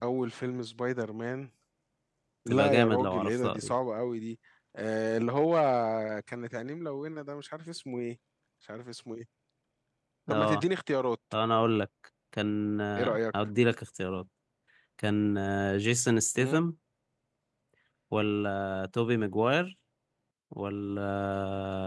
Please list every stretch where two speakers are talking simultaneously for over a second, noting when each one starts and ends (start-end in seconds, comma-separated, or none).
2.5-3.7